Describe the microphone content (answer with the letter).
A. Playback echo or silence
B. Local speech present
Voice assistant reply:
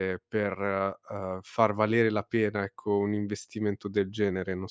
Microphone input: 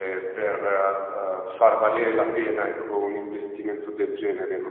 A